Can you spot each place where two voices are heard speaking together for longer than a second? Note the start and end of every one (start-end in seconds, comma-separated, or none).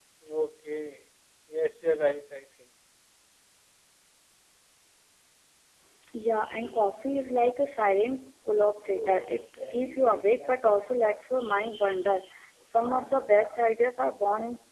none